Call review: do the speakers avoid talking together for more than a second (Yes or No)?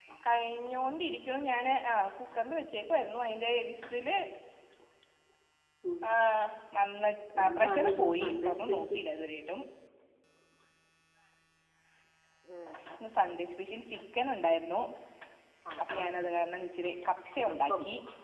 No